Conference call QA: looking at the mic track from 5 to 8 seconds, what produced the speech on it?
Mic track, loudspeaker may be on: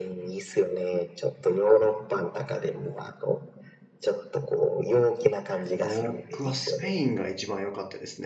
both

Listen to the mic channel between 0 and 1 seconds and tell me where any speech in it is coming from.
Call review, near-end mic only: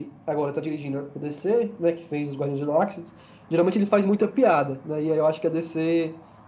echo only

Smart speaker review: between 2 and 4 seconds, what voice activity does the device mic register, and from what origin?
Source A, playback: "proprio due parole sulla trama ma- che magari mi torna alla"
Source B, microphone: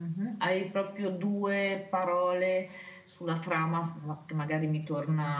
echo only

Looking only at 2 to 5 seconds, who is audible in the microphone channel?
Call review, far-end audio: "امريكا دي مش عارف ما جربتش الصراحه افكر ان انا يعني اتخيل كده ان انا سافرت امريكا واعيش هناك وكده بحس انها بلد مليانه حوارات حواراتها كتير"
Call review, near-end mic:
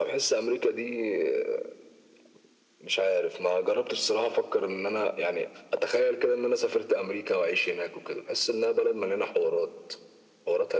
echo only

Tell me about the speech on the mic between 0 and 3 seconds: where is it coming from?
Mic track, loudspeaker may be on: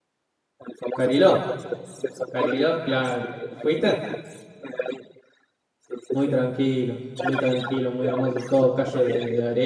both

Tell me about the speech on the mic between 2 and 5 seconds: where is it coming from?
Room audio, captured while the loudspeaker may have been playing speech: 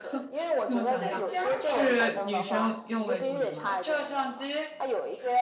both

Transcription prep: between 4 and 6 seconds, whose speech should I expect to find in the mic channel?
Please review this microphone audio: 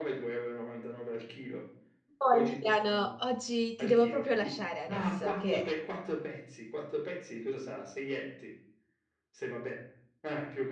both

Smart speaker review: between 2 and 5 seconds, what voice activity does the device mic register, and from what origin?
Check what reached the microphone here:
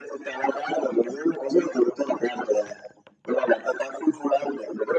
echo only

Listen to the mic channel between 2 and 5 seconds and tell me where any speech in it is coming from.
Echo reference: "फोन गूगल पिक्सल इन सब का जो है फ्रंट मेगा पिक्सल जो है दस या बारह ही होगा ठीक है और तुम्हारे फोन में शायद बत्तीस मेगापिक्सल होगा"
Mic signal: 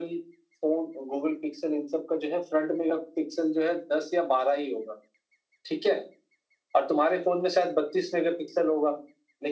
echo only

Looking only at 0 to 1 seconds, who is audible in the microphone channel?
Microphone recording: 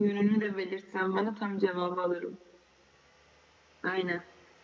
echo only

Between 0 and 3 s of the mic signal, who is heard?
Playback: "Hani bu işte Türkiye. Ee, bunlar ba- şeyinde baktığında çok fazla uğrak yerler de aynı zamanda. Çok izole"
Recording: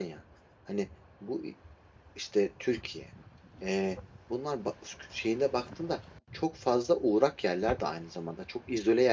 echo only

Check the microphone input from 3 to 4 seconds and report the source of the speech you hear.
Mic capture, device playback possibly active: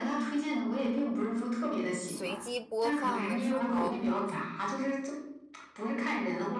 both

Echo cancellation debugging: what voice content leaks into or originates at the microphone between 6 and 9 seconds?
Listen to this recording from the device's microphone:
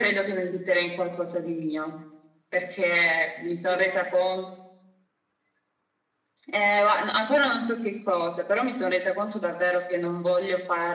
echo only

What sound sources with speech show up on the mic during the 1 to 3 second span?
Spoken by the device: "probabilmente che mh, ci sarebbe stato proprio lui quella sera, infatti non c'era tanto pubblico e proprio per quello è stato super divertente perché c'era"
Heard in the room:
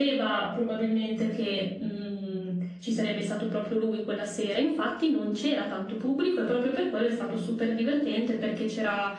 echo only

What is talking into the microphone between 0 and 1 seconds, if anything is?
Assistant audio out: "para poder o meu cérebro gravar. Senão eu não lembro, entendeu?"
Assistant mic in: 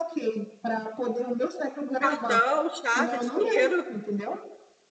echo only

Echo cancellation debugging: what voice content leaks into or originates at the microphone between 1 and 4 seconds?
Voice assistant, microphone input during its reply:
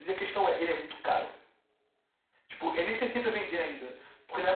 echo only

